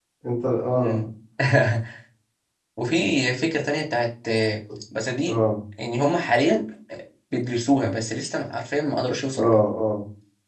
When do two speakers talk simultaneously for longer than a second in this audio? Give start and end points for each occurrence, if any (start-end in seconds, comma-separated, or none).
none